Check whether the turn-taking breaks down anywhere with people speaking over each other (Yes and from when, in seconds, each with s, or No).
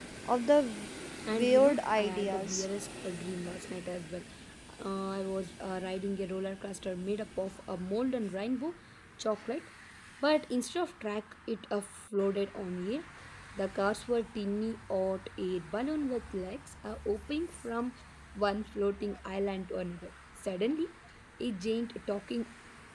Yes, from 1.3 s